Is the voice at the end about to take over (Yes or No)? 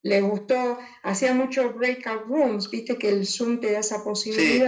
No